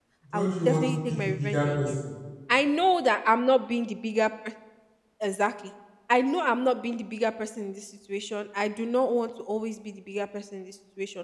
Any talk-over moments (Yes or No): Yes